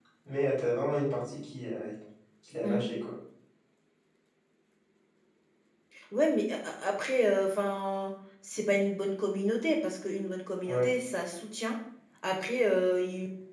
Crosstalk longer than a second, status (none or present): none